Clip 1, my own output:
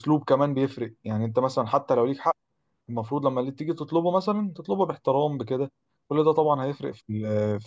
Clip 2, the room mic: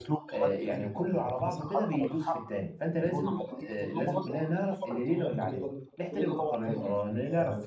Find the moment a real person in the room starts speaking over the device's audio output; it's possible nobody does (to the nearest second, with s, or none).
0 s